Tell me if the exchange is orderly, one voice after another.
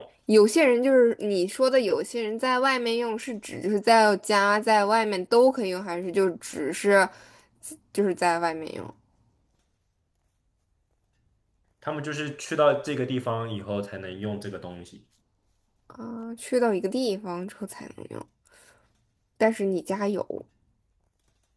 Yes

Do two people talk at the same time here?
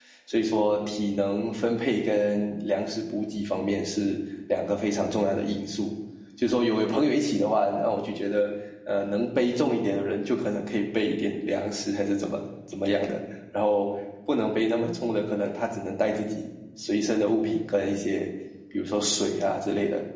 No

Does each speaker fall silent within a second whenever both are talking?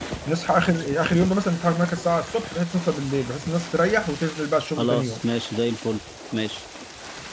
Yes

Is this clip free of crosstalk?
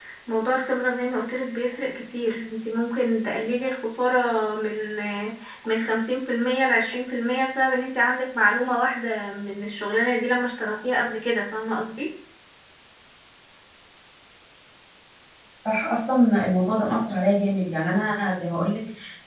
Yes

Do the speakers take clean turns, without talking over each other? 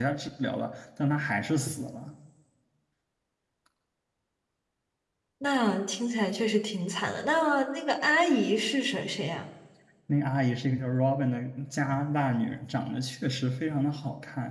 Yes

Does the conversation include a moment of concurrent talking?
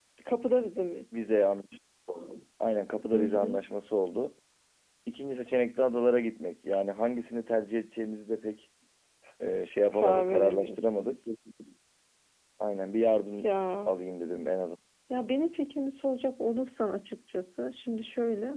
Yes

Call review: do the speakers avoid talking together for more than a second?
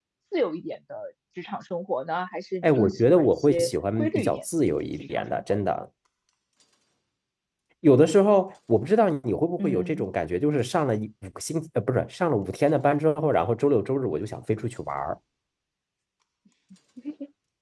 No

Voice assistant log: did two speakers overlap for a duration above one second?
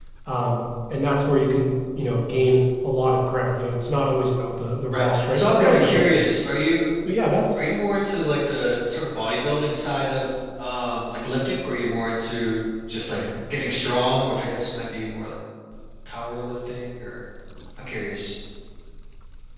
Yes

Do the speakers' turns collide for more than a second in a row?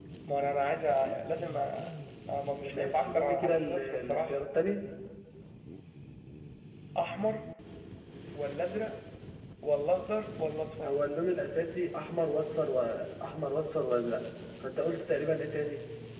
Yes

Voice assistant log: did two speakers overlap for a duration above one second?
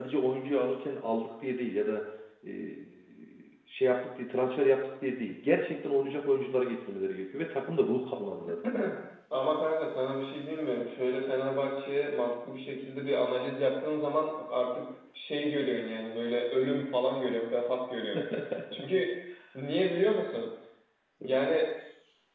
No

